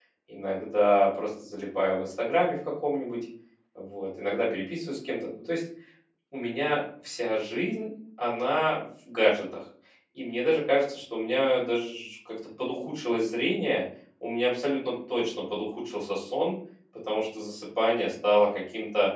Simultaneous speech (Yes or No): No